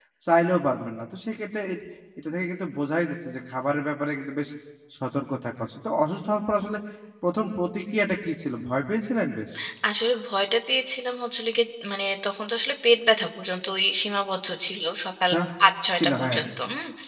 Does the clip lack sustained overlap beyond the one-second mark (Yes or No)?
Yes